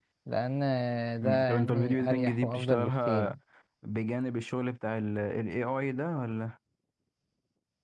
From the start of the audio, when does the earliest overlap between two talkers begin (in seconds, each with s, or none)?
1.2 s